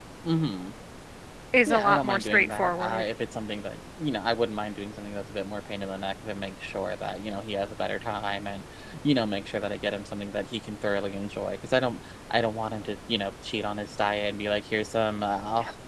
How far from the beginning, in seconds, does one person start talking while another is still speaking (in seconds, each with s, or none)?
1.7 s